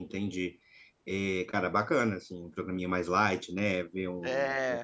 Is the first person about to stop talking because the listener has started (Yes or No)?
No